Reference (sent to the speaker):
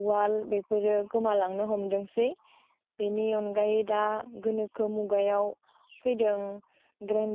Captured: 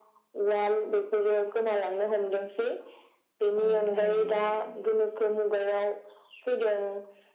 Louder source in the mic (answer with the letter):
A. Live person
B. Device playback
B